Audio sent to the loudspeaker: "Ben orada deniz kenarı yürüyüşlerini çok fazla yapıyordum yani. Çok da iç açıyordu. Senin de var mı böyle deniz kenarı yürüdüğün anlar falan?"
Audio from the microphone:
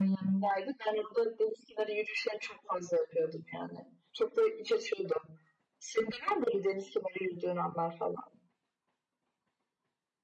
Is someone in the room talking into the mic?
No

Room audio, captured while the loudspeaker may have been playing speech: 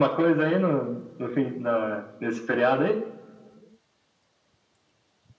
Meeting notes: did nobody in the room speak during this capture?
Yes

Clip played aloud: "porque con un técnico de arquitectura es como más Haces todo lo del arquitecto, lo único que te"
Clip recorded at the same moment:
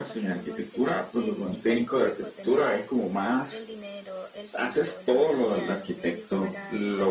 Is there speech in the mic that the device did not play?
Yes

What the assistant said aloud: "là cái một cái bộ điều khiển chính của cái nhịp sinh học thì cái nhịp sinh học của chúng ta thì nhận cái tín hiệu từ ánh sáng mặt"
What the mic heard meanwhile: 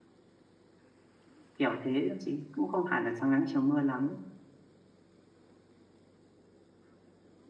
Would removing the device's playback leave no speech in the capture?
No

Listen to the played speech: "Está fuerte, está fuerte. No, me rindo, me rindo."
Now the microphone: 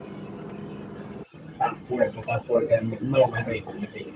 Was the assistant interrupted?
No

